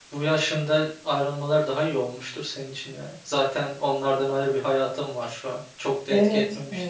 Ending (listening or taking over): taking over